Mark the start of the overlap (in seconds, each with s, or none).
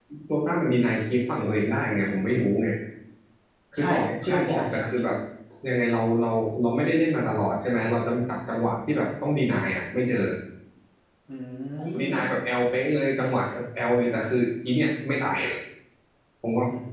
3.8 s